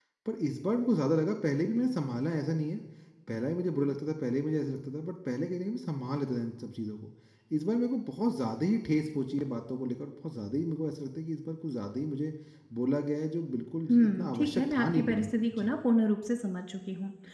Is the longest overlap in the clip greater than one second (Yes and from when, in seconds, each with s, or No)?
Yes, from 13.9 s